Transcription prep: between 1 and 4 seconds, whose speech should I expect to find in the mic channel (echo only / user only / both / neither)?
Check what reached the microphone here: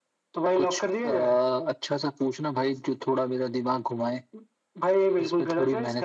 echo only